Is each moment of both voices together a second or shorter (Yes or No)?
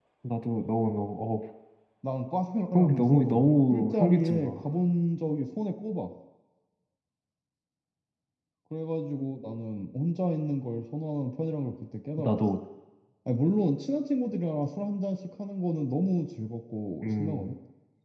No